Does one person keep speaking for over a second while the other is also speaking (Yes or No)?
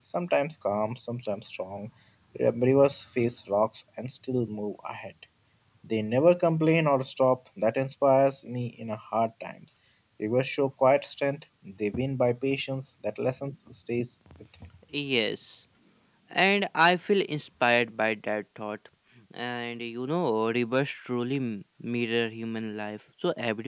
No